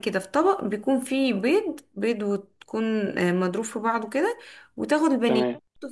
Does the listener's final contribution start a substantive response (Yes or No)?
No